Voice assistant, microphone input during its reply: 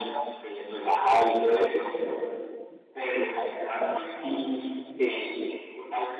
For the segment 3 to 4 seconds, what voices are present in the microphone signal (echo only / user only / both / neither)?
echo only